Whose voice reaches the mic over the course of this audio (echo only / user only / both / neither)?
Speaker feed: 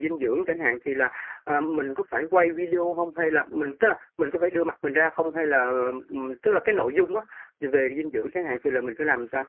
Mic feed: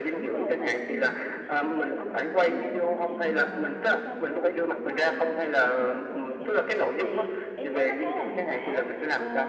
both